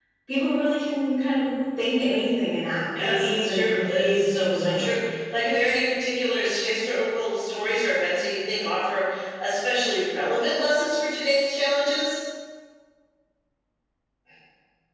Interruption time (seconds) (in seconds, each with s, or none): 2.9 s